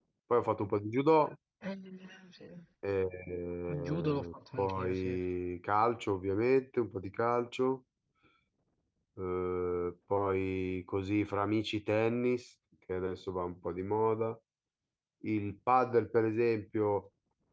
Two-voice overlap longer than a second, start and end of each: 3.9-5.2

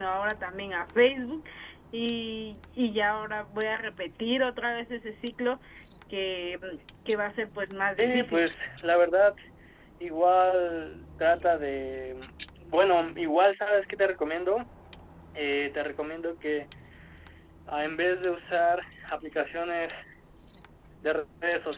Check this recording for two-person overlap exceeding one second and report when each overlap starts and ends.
none

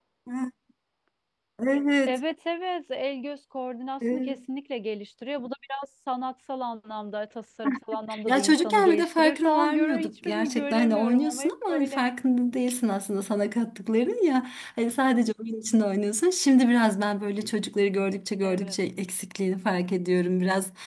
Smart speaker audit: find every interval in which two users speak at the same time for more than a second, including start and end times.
8.3-12.0

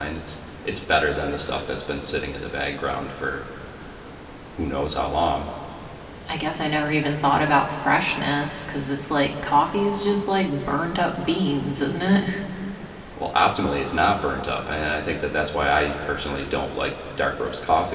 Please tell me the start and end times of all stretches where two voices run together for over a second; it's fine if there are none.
none

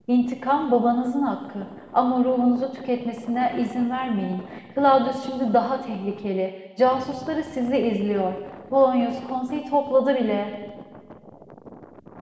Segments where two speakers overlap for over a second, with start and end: none

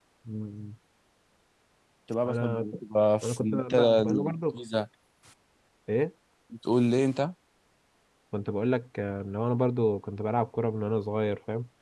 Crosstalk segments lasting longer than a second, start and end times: 3.2-4.6

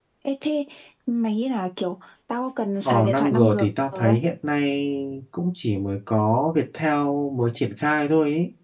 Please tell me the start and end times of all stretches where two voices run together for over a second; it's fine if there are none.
2.9-4.2

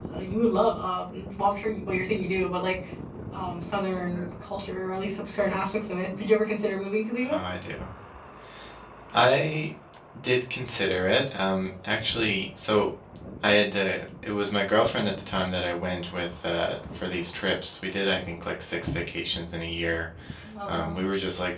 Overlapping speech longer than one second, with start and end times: none

